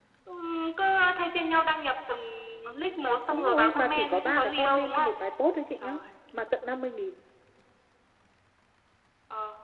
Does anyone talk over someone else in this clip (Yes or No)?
Yes